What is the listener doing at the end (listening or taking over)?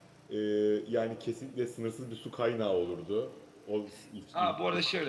taking over